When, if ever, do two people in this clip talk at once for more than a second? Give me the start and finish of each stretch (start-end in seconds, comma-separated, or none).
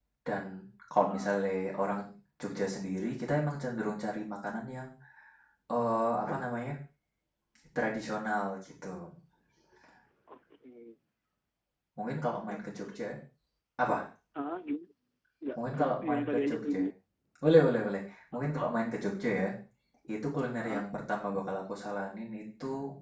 15.6-16.9